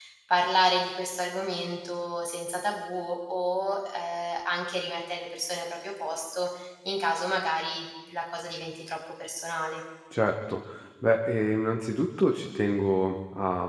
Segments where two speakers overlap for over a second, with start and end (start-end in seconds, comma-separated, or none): none